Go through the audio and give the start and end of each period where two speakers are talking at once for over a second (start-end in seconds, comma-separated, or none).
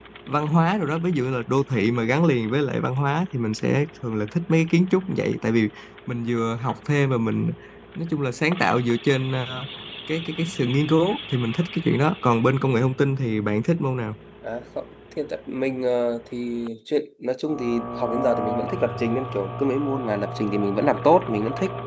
none